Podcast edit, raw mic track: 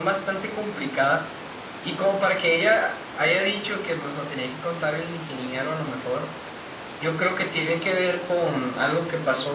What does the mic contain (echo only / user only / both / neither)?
echo only